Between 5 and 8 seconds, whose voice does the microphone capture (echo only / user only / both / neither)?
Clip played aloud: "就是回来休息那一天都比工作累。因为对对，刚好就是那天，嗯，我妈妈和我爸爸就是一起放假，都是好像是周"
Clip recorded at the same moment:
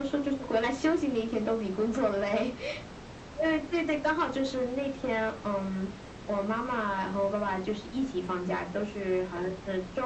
echo only